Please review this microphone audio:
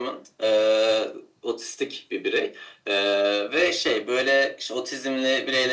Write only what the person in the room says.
none

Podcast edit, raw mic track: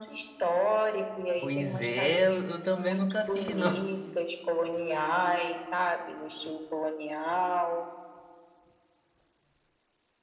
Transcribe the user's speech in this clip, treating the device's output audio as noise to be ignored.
Pois é, eu eu também nunca fiz, não.

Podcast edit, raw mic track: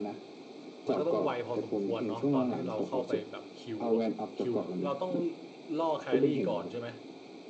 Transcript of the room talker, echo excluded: มันก็ต้องไวพอสมควรเนาะตอนที่เราเข้าไปแบบคิวอะคิวเราต้องล่อแครี่ก่อนใช่ไหม

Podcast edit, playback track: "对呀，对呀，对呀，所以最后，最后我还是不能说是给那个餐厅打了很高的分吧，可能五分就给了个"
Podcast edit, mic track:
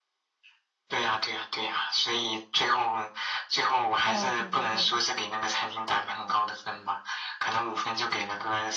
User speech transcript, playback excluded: 哦，对对对，

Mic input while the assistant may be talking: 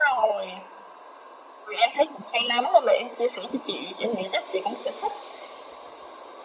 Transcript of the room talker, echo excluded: none

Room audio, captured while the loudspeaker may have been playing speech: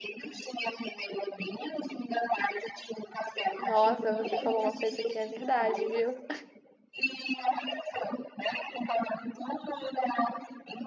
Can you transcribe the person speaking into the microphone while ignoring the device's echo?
Nossa, você falou uma coisa que é verdade, viu?

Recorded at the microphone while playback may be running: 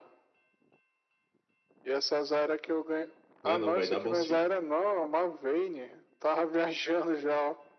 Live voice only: Não, é não, vai dar bom sim.

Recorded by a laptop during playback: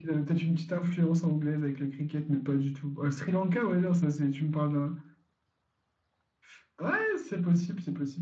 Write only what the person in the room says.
none

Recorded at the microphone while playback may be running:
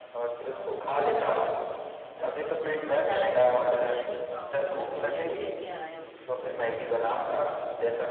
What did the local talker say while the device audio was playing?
तो मुझे तुम बता रहे हो कि बिरयानी खाऊंगा बिरयानी लेके आया हो

